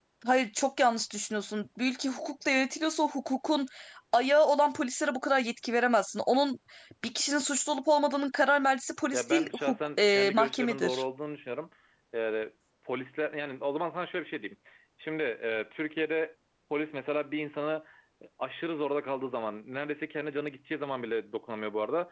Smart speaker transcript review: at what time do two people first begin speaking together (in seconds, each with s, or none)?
9.1 s